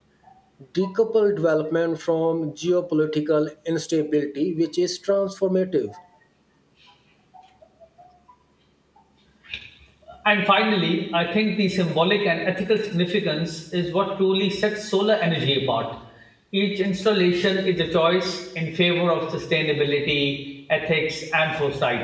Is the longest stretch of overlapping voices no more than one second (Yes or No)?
Yes